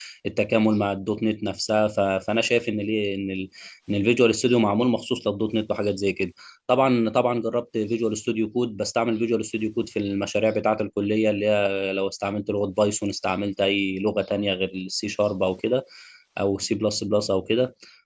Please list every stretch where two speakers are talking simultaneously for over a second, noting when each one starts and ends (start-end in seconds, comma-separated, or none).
none